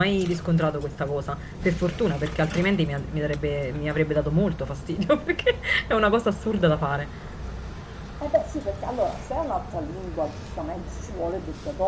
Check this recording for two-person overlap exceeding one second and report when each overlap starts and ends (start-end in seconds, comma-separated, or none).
none